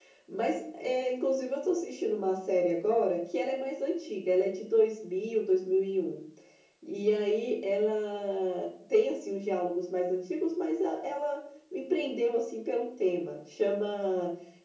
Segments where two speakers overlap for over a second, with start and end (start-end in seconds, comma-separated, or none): none